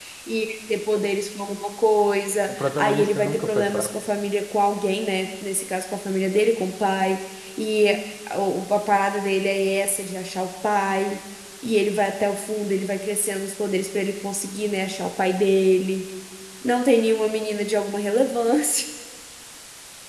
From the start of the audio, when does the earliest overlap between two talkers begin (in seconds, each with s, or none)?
2.5 s